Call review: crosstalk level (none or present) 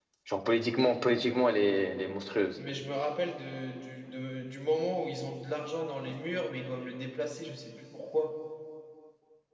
none